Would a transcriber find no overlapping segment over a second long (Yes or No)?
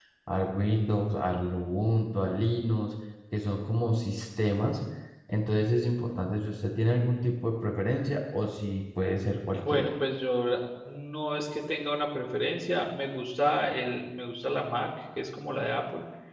Yes